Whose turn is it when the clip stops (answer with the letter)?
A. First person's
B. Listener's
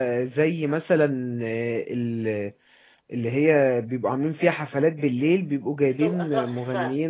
A